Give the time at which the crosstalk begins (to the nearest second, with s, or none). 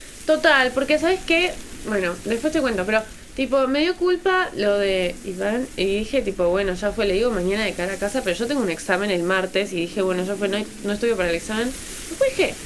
none